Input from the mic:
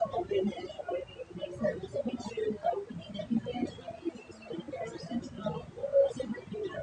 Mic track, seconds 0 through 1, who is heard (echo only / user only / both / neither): echo only